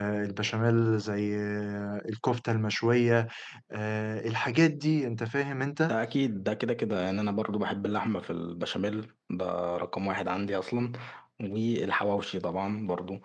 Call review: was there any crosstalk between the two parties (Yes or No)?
No